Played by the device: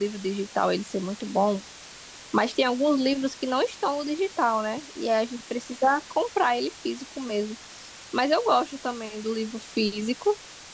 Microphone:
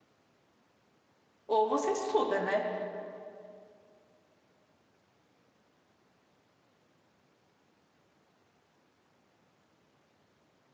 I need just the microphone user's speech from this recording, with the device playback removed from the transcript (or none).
ou você estuda, né?